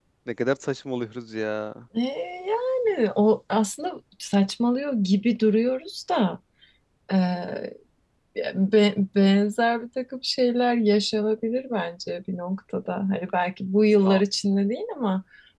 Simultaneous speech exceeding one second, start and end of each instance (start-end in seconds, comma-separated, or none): none